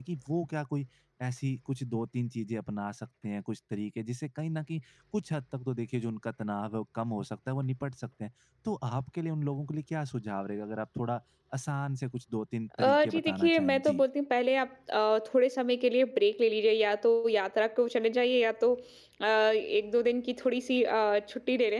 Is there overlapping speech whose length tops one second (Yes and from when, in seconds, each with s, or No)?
Yes, from 12.7 s